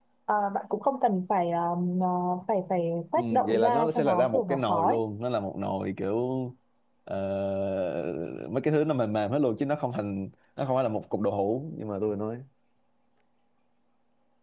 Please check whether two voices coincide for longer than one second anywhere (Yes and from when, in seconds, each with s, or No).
Yes, from 3.2 s